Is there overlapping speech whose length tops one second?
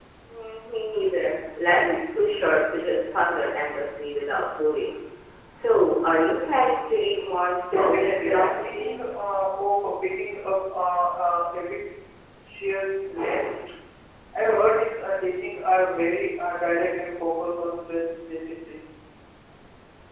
Yes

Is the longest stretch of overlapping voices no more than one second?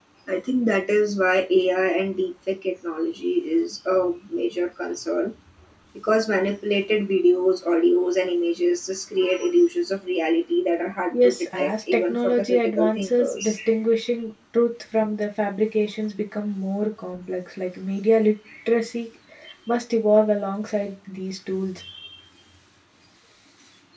No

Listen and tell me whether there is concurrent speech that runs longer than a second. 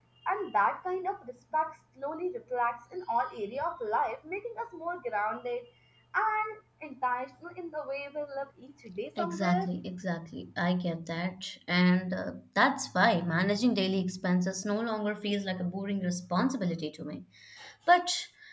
No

